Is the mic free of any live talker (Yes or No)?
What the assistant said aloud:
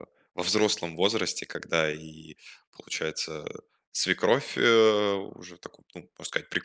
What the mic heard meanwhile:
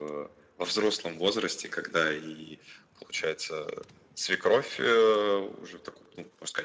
Yes